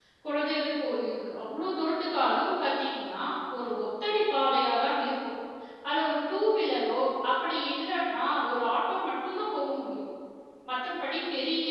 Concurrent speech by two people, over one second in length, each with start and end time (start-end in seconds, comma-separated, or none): none